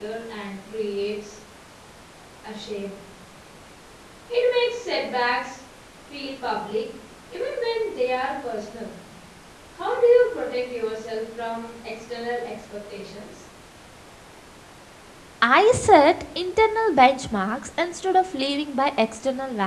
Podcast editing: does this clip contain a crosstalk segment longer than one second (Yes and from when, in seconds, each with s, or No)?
No